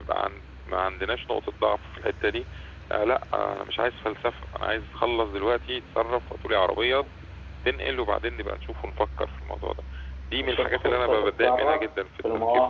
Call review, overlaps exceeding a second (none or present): present